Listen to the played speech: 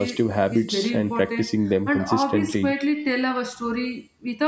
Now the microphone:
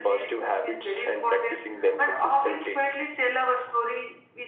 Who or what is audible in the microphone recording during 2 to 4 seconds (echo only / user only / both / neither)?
echo only